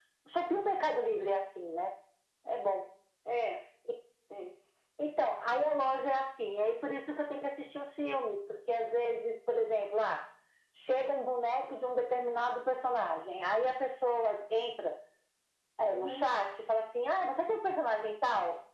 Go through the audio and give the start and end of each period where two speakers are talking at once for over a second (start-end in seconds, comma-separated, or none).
none